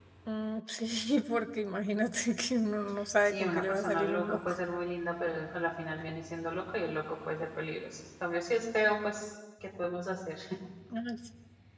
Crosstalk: present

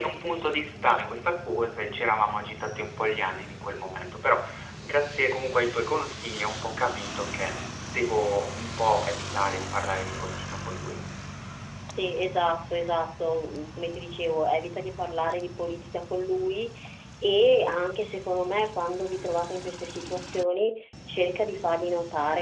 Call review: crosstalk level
none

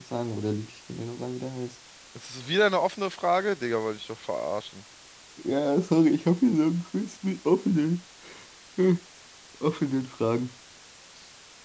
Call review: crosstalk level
none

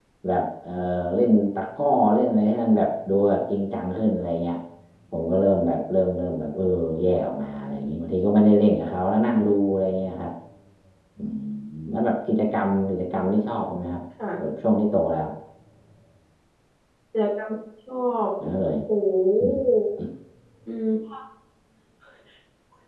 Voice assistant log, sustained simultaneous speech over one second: none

